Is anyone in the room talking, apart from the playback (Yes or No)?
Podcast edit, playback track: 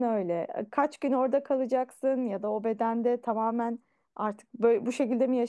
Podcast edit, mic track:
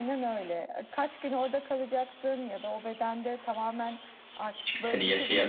Yes